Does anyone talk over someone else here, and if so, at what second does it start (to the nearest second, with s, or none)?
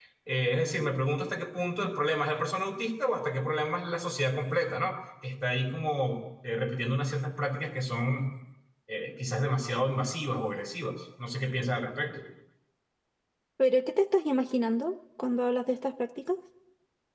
none